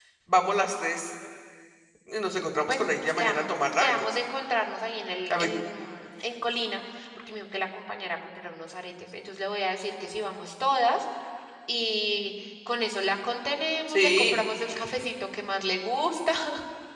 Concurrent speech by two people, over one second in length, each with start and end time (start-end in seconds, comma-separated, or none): 2.7-4.0